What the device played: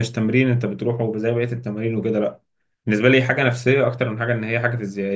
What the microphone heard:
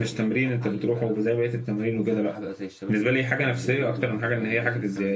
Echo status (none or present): present